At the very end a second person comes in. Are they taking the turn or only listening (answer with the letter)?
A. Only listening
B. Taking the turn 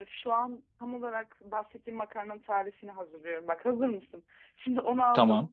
A